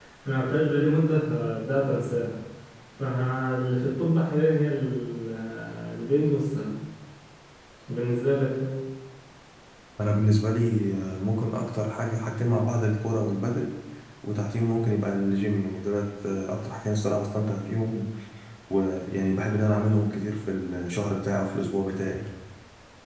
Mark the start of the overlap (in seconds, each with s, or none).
none